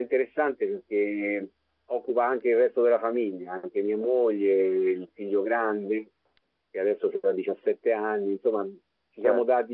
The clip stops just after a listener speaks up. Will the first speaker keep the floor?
Yes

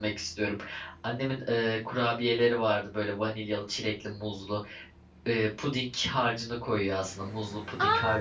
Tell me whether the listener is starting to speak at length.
Yes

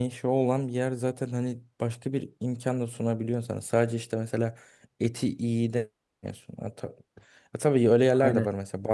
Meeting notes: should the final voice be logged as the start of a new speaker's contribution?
No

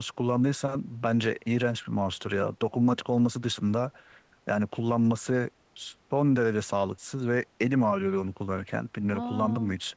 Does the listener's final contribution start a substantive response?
Yes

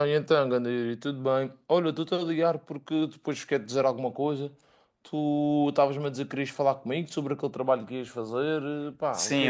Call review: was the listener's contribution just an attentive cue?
No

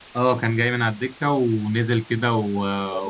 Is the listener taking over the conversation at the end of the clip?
No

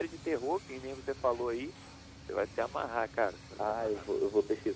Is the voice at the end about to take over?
Yes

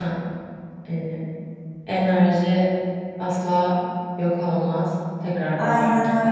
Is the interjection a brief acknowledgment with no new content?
No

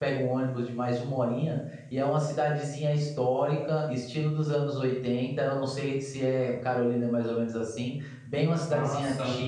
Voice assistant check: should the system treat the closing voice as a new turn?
No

